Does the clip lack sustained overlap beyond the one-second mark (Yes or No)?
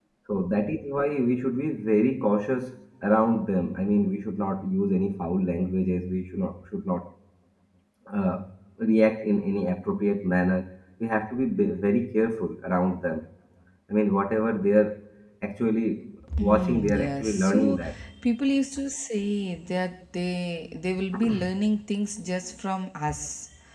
No